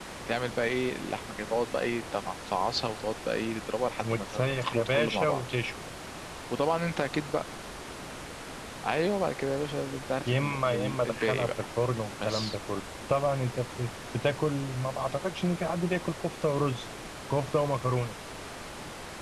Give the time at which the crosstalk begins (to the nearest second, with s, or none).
4 s